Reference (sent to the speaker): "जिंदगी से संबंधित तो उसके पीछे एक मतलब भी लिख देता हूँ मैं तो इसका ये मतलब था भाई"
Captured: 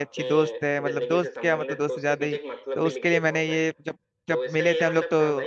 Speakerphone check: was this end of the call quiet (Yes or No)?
No